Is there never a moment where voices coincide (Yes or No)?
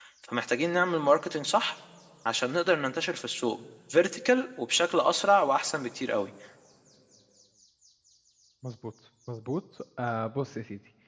Yes